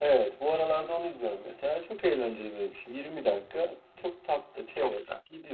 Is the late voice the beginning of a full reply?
No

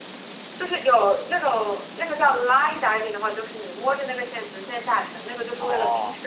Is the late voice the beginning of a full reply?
No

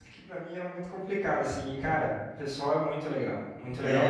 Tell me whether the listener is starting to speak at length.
Yes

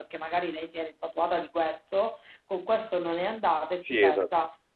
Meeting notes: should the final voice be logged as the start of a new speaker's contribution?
No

